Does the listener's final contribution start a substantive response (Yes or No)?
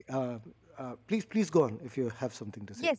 Yes